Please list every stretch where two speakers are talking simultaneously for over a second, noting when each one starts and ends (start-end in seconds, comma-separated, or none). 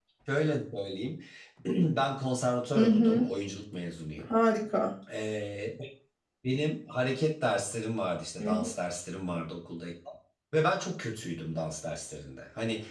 none